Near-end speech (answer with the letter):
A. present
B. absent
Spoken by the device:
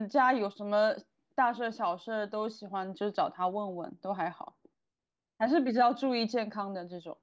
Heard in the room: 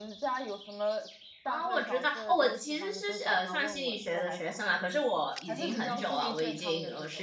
A